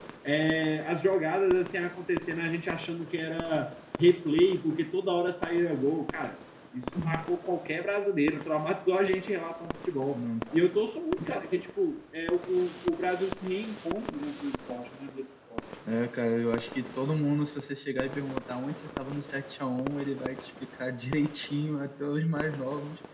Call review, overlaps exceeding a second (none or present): none